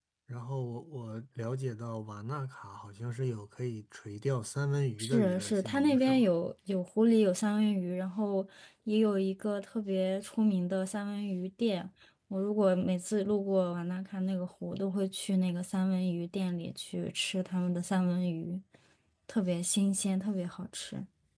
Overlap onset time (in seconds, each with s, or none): 5.0 s